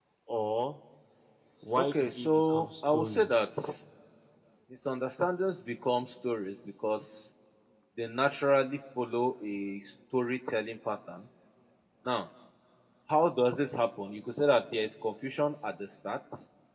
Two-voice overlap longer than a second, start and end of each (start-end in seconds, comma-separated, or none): 1.8-3.3